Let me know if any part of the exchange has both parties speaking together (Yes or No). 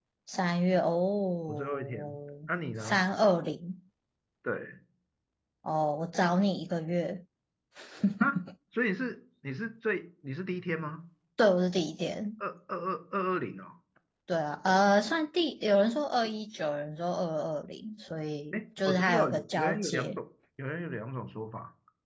Yes